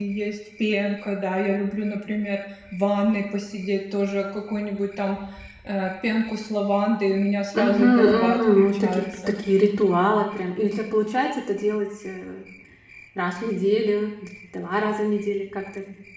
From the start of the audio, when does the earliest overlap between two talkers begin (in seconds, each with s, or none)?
7.5 s